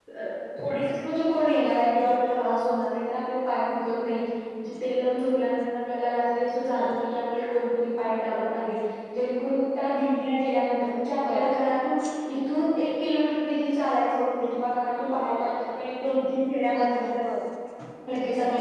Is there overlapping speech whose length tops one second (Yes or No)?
No